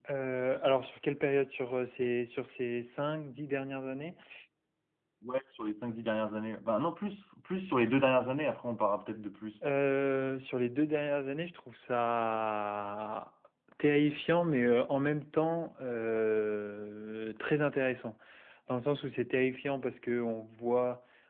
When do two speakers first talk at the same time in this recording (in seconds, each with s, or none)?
none